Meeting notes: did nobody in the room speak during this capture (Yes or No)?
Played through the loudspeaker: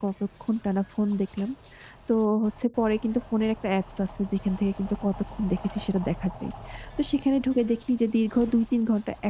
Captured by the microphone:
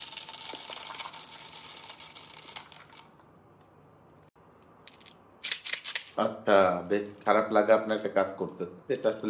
No